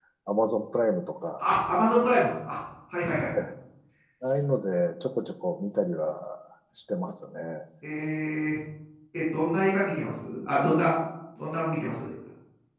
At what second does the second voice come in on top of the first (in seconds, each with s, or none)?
none